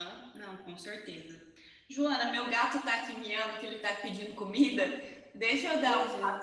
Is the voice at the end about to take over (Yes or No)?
No